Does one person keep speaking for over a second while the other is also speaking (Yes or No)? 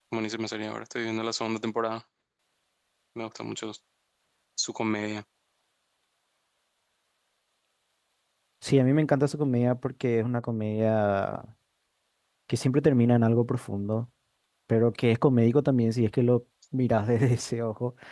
No